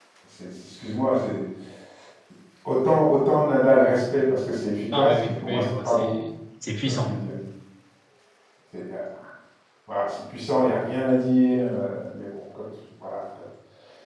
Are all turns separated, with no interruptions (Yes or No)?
No